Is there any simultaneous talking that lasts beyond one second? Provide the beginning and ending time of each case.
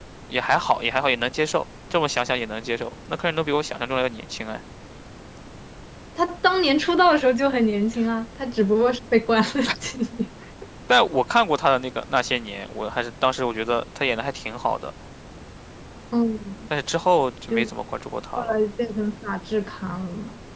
none

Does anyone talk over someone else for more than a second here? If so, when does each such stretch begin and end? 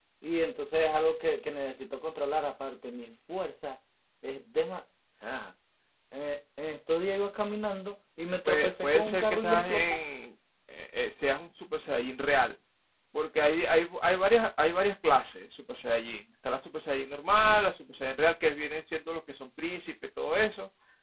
8.4-10.0

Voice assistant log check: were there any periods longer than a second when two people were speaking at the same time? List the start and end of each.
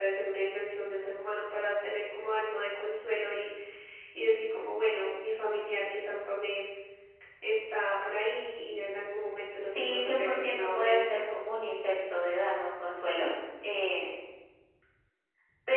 9.7-11.2

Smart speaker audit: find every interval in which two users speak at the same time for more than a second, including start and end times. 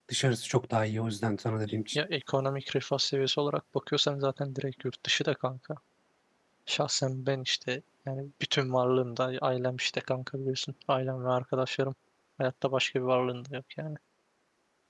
none

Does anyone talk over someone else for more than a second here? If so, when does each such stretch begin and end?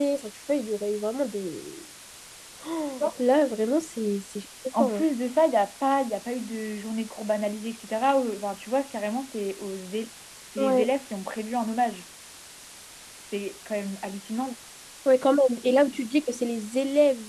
none

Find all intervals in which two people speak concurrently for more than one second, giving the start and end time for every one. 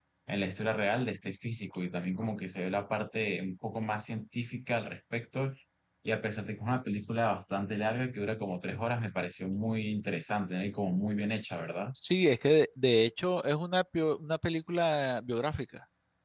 none

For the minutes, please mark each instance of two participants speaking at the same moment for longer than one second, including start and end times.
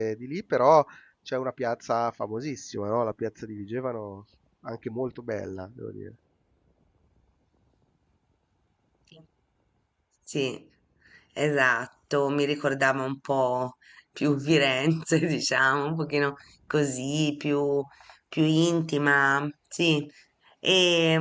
none

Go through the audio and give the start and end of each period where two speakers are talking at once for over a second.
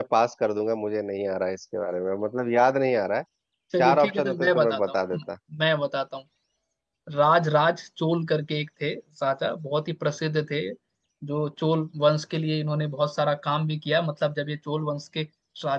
3.8-5.2

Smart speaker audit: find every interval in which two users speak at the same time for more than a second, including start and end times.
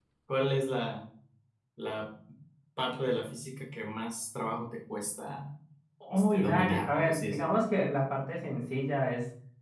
6.1-7.6

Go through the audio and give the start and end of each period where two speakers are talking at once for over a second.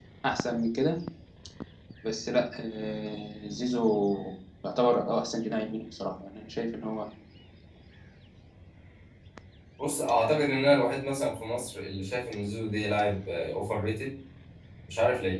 none

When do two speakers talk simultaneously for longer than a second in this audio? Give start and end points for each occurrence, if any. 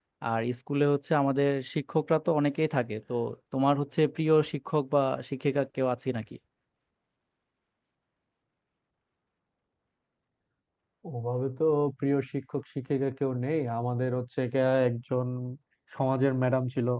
none

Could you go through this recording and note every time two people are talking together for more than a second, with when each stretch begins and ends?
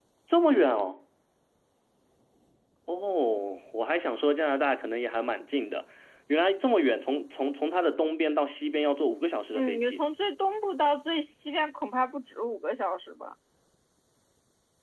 none

